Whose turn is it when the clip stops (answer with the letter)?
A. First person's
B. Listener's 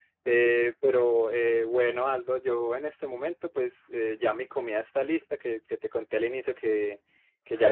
A